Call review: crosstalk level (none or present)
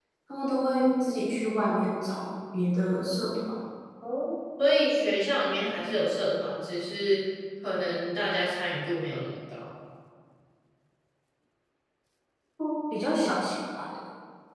none